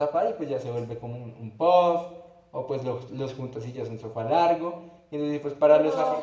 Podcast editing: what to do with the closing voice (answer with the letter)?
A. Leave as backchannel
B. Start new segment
B